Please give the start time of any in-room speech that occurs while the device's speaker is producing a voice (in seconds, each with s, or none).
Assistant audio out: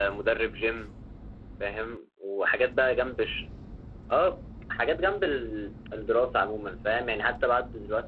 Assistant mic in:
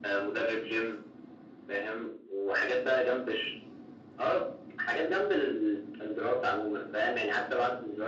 none